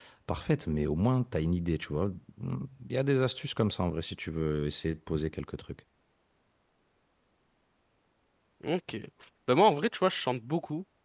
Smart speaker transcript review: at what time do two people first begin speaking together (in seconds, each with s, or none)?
none